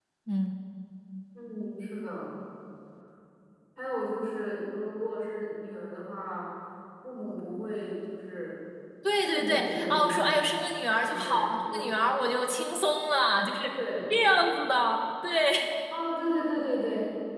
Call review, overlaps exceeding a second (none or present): present